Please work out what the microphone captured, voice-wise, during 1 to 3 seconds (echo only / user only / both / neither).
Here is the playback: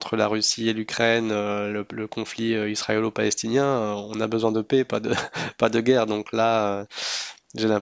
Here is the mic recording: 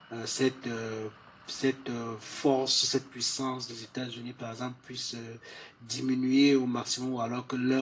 user only